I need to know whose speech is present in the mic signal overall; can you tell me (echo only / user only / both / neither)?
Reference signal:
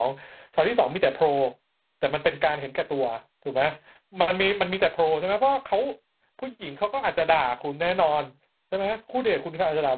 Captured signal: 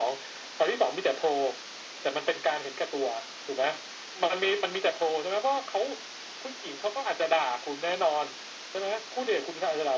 echo only